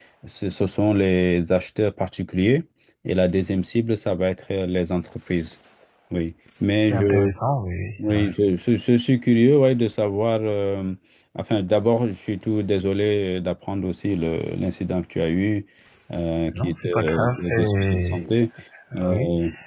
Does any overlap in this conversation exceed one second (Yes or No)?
Yes